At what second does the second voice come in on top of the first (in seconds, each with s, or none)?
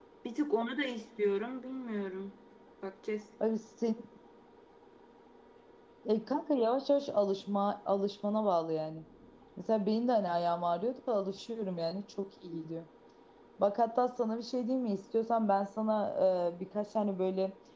none